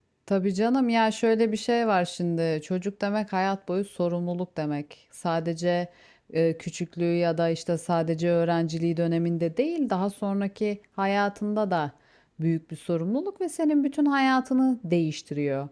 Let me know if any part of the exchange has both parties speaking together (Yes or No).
No